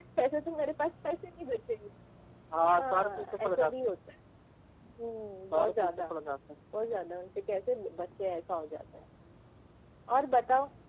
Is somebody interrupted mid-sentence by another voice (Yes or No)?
Yes